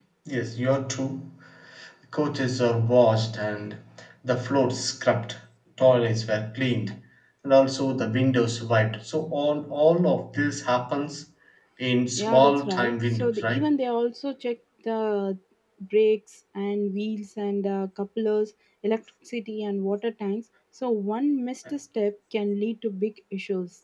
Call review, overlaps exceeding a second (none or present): present